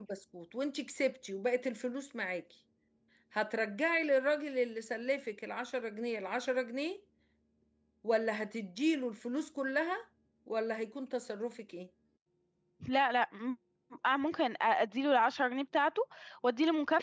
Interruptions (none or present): none